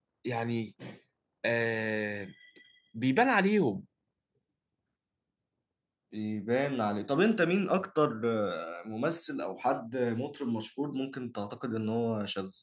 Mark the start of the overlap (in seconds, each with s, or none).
none